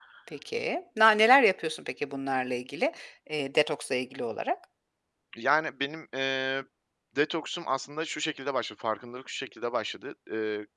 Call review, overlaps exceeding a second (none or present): none